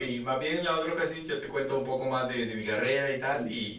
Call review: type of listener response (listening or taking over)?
taking over